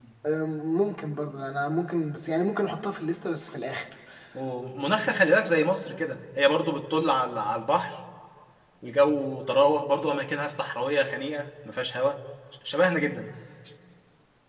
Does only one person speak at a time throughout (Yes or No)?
Yes